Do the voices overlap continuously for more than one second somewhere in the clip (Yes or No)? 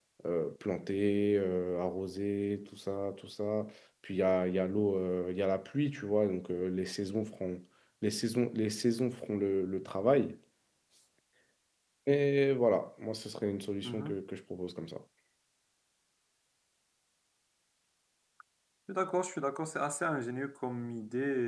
No